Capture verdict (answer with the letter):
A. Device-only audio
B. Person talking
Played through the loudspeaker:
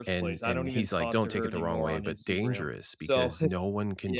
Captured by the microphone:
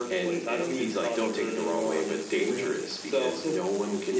A